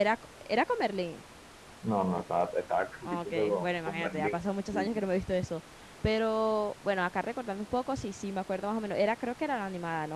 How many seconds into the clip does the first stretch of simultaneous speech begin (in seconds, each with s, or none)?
3.0 s